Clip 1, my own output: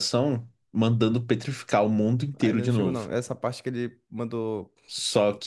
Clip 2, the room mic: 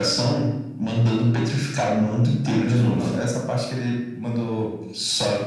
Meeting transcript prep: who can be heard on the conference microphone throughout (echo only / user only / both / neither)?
echo only